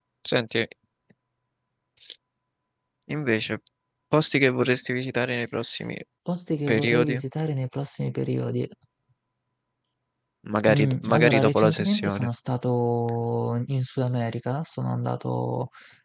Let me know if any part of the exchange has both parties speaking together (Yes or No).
Yes